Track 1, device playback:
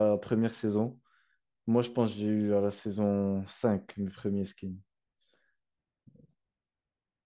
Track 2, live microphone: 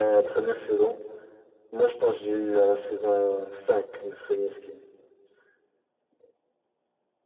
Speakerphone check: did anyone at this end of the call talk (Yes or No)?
No